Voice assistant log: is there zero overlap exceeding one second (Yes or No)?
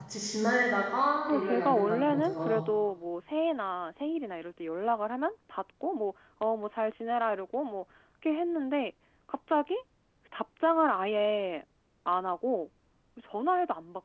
No